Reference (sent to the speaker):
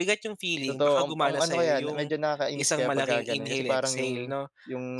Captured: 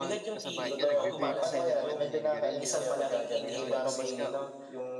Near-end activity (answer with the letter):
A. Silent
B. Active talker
B